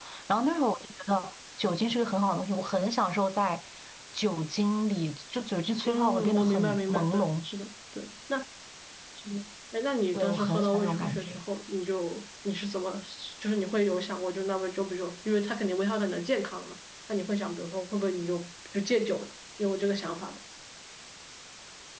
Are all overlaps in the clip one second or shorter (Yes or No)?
No